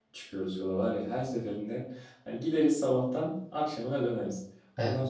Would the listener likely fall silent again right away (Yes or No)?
Yes